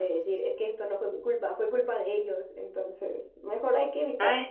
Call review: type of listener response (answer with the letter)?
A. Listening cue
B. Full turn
B